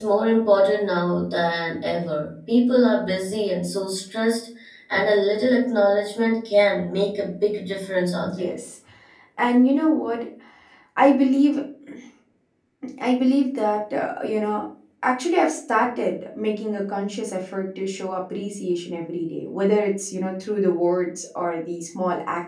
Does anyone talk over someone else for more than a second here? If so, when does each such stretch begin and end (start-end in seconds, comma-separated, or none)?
none